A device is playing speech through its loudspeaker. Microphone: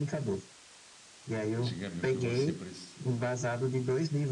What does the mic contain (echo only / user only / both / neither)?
both